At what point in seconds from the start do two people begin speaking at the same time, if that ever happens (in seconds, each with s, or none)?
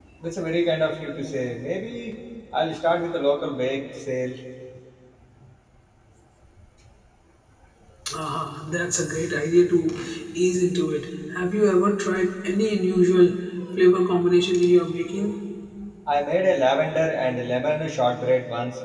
none